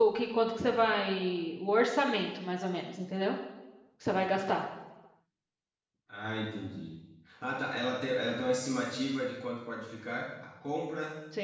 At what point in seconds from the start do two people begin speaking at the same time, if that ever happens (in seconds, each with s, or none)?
none